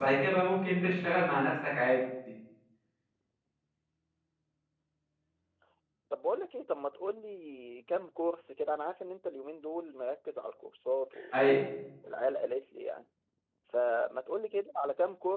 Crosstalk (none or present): none